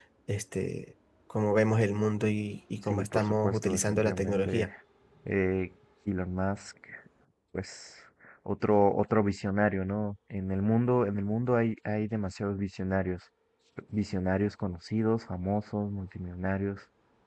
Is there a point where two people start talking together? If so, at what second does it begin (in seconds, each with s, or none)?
2.8 s